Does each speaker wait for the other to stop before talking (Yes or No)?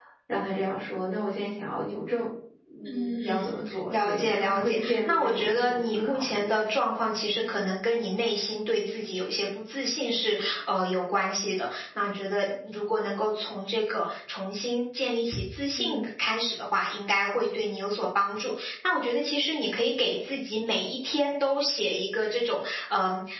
No